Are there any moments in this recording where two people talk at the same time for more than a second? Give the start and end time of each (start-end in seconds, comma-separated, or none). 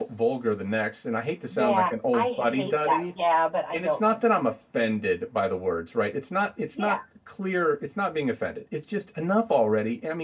1.5-3.1